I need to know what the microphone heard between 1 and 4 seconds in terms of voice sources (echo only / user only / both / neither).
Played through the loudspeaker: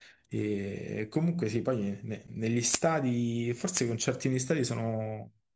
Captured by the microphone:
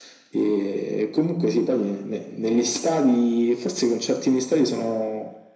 echo only